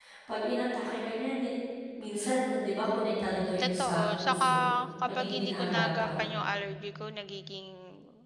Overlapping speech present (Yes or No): Yes